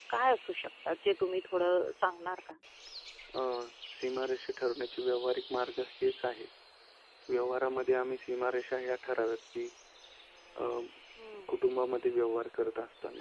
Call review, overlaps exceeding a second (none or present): none